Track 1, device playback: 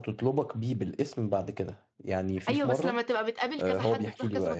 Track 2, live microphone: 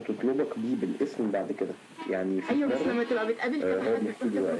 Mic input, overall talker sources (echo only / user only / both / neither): echo only